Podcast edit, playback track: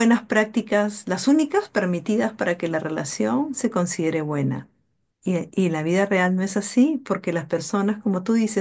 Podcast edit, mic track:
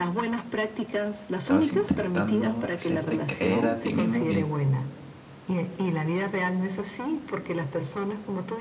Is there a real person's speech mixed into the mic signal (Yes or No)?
Yes